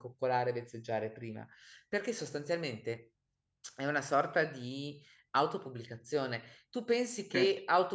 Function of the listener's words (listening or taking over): listening